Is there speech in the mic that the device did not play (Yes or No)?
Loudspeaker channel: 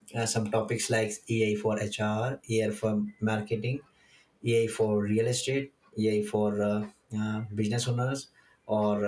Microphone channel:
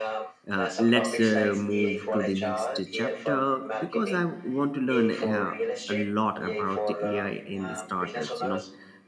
Yes